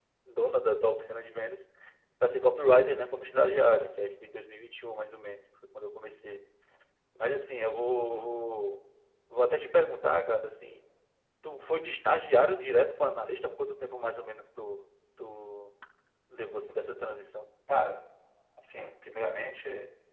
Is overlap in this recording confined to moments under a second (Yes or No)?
Yes